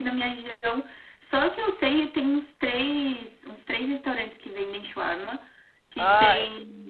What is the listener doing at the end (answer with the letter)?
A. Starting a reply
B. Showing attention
B